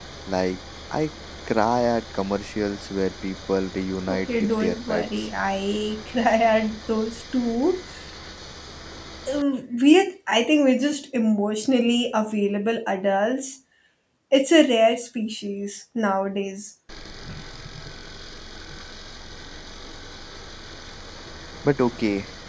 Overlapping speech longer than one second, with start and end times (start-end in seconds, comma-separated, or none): 4.1-5.3